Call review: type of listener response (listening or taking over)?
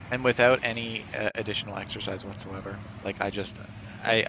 listening